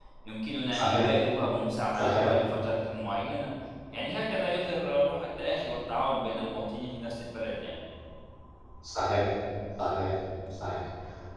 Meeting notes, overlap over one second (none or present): none